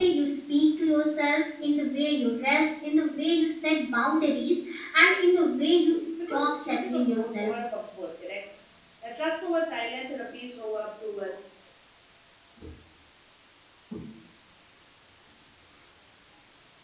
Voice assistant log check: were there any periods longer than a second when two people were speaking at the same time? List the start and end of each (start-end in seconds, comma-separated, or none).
6.3-7.5